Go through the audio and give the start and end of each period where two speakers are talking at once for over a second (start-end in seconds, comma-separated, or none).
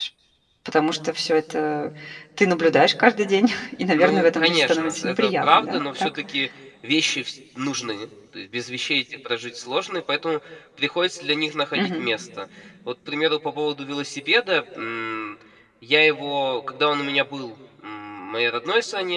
4.0-6.1